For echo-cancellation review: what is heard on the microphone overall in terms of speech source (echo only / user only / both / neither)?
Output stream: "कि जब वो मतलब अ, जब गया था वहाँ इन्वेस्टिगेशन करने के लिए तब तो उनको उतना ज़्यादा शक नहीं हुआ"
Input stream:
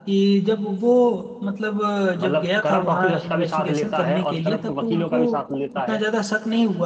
both